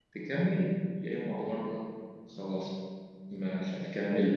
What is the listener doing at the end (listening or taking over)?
listening